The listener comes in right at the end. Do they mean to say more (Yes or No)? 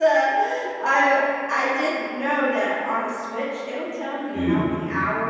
No